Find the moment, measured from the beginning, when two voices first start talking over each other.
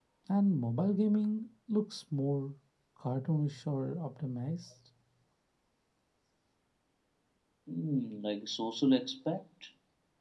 none

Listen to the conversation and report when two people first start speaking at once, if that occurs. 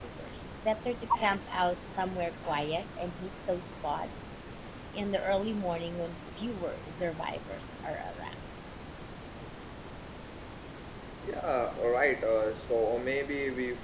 none

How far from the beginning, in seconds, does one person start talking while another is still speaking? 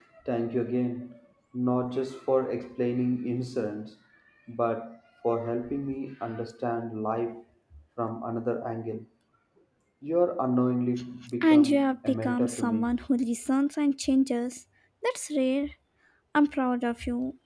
11.4 s

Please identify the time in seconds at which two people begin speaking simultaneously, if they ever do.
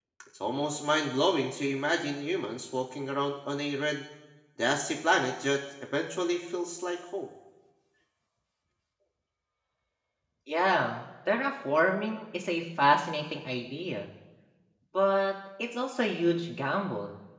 none

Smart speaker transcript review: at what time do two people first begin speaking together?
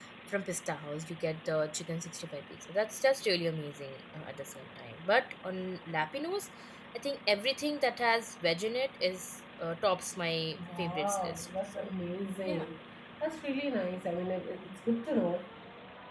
10.6 s

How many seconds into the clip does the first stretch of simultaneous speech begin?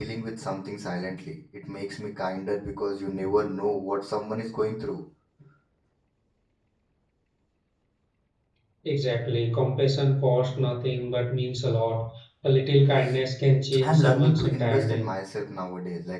13.8 s

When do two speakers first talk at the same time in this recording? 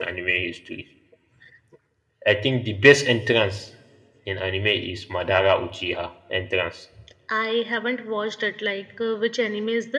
none

